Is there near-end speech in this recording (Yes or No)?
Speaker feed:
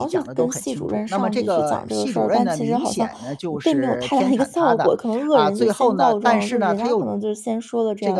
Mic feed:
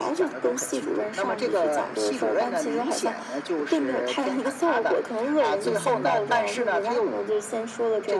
No